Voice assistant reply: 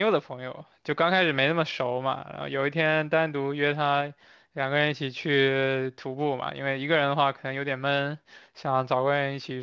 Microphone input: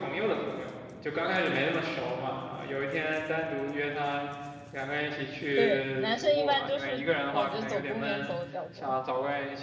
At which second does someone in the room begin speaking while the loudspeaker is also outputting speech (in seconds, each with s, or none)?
5.5 s